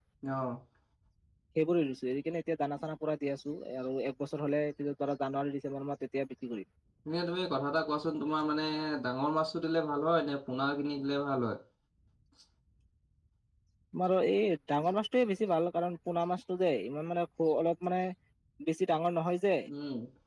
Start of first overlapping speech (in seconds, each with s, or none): none